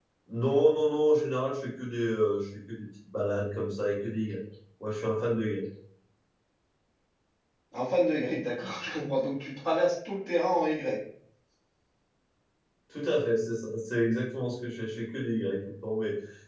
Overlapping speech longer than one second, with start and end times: none

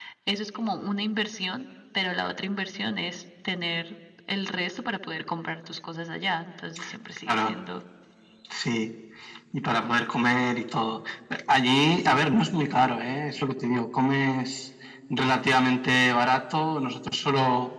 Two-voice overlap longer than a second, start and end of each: none

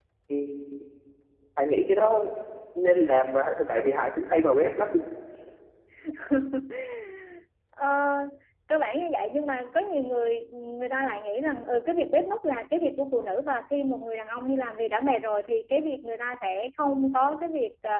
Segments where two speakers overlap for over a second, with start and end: none

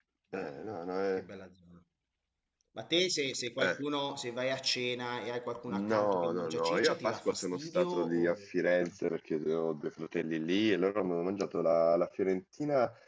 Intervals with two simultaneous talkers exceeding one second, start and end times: 5.9-8.4

